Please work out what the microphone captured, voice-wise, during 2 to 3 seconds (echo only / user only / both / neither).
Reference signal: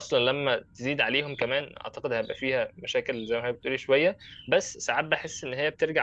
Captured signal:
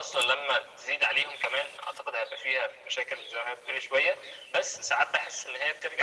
echo only